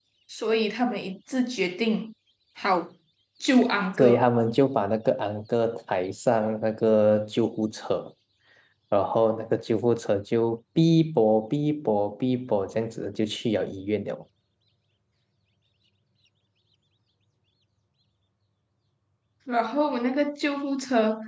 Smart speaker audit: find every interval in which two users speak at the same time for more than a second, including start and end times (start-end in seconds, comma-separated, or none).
none